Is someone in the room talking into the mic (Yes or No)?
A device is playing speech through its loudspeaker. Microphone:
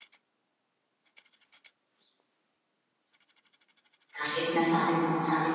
Yes